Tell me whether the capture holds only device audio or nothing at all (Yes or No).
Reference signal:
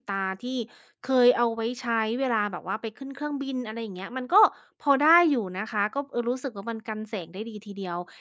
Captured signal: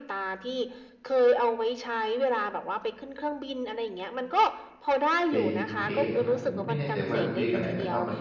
No